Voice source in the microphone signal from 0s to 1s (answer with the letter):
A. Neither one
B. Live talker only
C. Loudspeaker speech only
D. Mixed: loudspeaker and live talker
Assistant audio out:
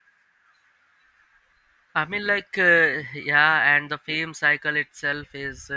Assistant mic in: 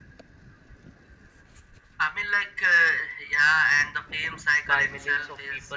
A